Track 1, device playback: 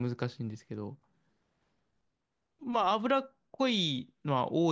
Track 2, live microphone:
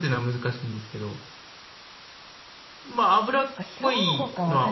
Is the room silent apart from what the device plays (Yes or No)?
No